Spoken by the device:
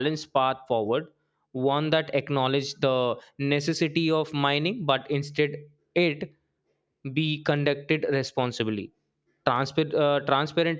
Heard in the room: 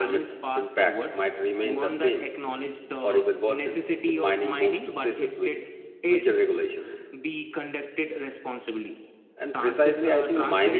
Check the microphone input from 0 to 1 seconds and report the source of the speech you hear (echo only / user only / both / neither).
both